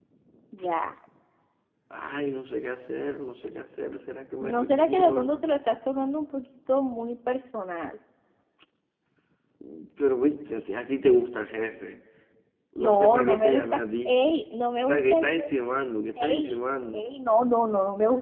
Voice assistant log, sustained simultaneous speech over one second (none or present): present